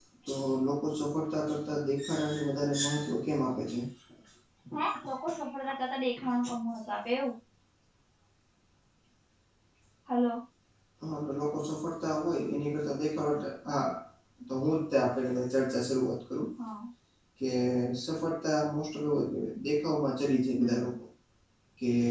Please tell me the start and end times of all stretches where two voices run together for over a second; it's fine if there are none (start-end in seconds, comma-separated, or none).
none